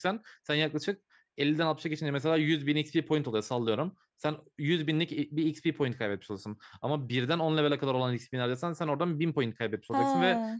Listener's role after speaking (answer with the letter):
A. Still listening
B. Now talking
A